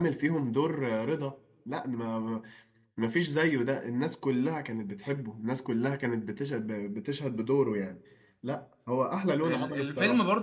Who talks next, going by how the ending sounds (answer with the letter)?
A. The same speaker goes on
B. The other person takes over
B